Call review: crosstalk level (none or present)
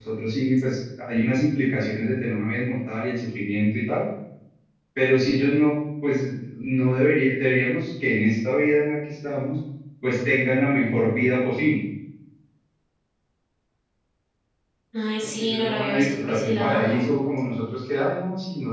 present